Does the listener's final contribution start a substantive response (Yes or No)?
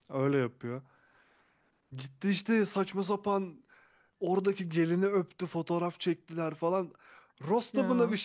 No